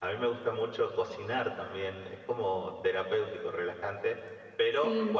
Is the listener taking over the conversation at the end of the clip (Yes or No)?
No